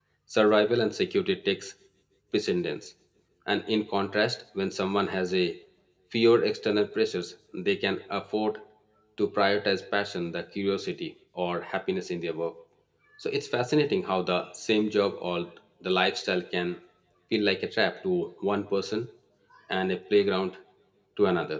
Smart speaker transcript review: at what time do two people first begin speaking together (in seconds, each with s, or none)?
none